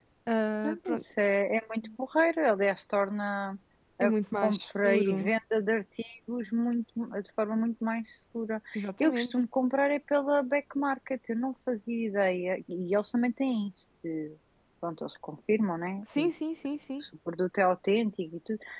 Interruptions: present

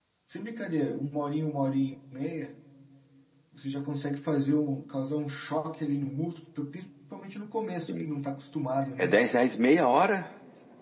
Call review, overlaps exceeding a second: none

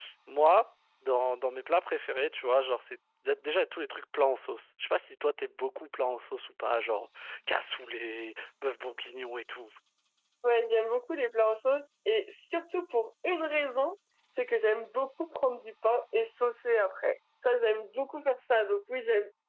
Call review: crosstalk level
none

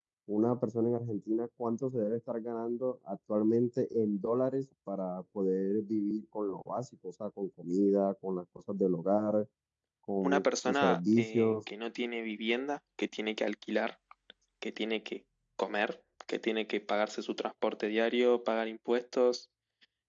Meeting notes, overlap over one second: present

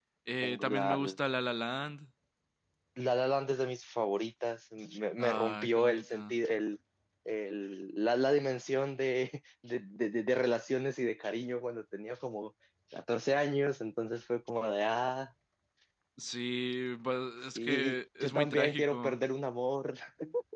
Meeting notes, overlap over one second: present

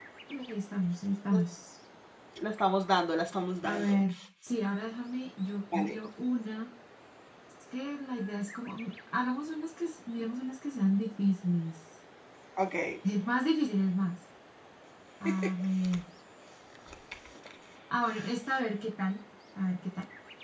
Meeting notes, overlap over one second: none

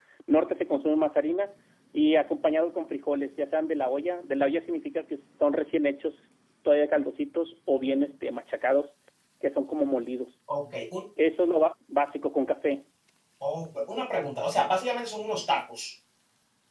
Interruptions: none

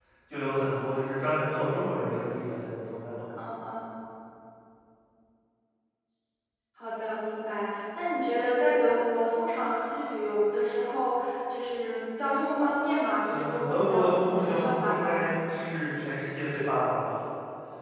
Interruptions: present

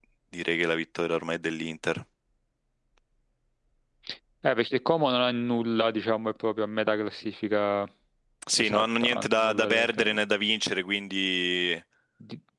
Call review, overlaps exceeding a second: present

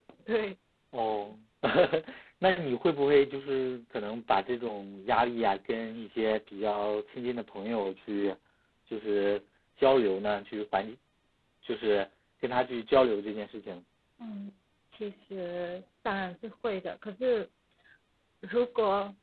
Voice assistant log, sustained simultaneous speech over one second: none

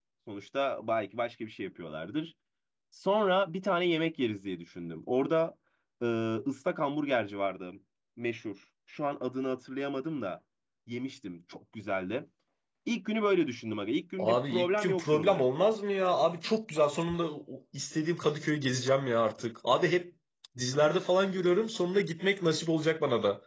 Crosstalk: present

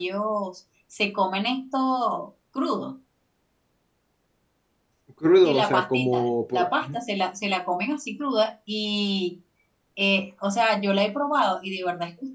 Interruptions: present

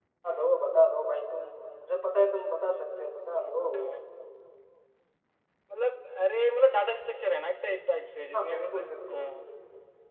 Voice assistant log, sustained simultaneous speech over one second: none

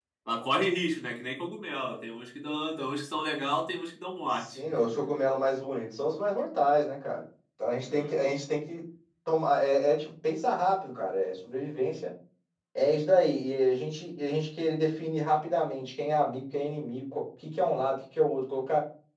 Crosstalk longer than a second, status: none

